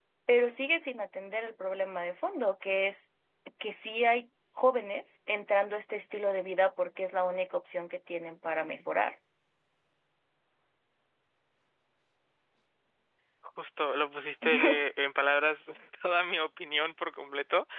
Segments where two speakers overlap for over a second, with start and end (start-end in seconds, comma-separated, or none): none